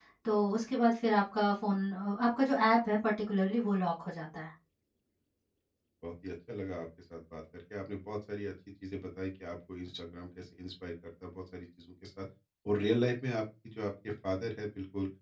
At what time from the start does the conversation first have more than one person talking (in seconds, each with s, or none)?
none